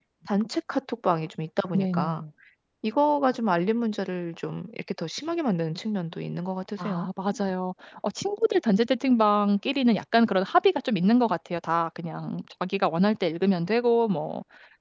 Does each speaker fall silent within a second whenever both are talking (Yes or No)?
Yes